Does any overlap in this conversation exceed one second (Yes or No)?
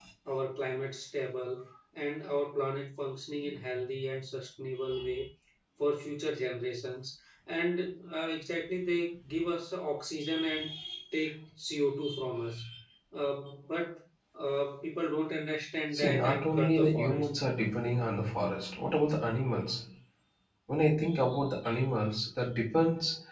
Yes